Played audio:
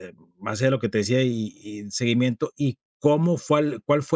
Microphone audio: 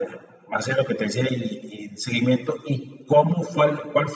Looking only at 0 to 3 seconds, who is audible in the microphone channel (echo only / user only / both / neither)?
echo only